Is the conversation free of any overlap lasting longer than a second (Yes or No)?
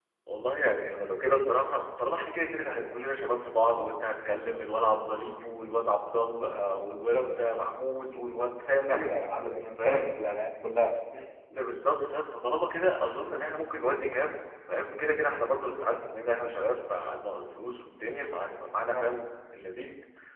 Yes